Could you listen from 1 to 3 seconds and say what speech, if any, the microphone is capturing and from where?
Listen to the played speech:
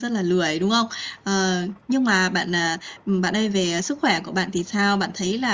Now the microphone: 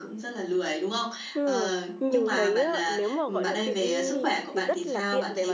both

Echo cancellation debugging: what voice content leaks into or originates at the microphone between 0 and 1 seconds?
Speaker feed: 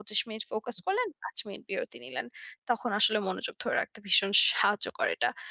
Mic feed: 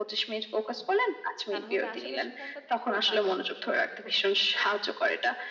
echo only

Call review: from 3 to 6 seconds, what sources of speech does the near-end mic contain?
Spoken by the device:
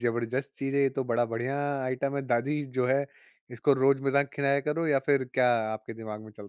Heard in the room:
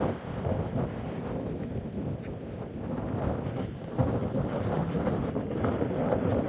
neither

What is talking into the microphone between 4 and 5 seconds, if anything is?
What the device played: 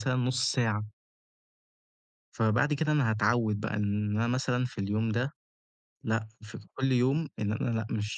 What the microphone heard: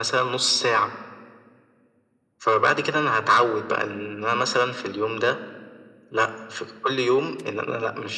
echo only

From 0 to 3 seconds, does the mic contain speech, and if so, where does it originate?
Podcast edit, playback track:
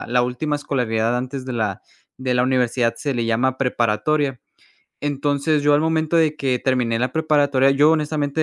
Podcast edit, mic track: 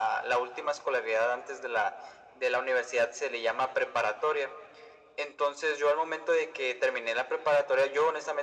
echo only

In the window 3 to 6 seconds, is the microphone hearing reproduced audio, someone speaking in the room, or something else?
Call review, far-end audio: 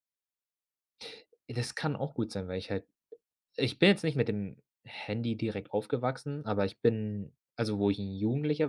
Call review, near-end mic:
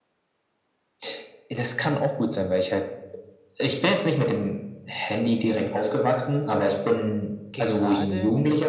echo only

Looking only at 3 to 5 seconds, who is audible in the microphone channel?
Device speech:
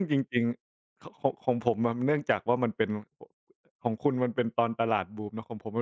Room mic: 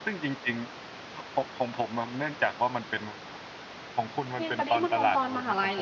both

